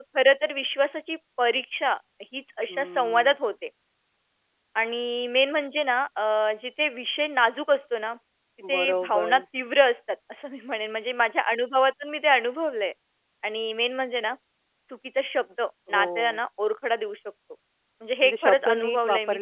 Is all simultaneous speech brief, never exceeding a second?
No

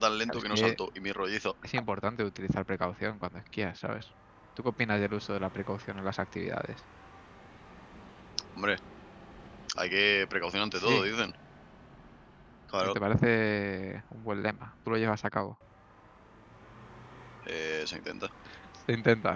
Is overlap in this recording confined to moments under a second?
Yes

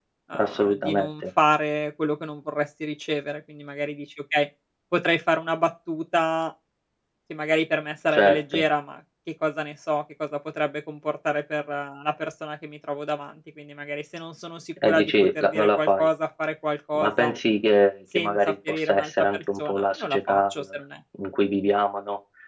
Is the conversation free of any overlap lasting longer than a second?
No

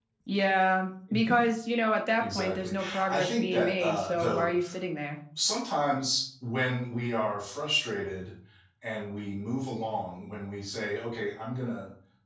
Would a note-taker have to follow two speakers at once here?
Yes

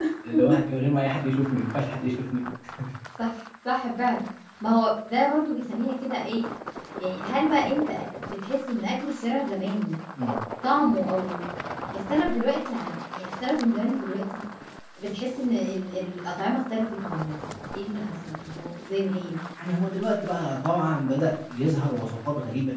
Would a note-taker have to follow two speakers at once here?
No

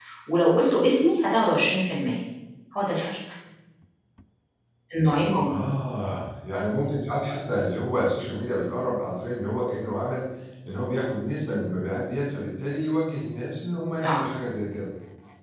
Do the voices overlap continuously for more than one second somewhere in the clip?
No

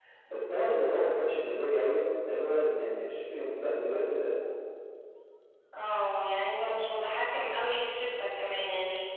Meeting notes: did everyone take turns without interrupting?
Yes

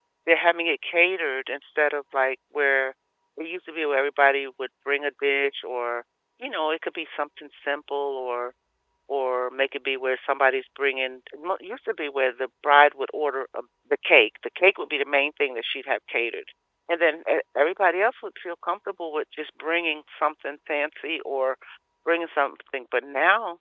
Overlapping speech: No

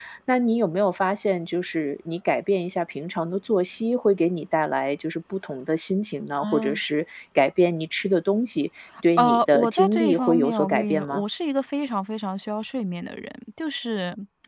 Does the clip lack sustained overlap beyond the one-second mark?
No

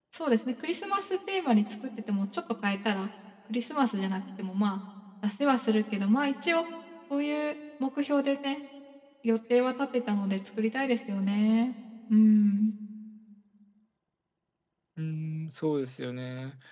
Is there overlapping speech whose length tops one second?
No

